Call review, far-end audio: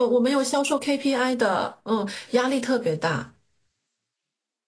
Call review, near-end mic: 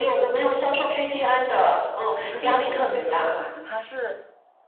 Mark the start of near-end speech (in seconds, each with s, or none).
2.2 s